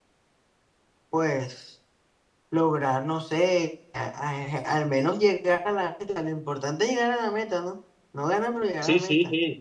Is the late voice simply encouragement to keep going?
No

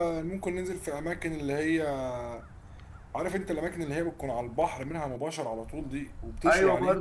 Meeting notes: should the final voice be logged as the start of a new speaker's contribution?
Yes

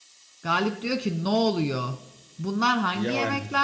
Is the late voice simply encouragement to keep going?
Yes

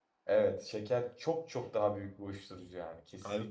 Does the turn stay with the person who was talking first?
No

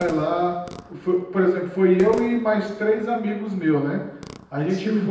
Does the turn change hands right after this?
No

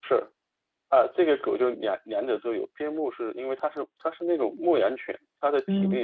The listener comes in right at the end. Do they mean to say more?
No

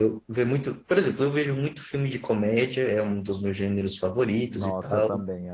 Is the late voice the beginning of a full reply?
Yes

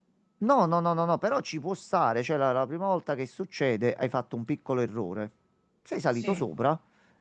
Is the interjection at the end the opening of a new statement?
No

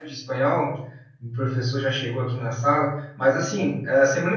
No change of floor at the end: Yes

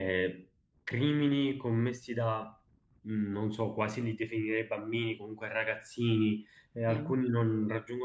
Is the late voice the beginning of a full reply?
No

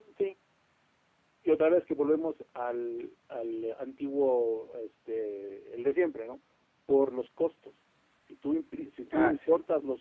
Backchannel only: Yes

